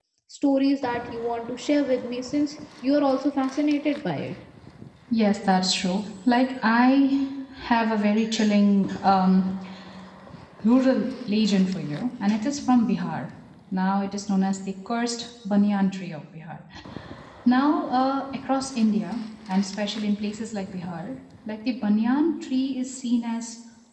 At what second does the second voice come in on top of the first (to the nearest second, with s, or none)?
none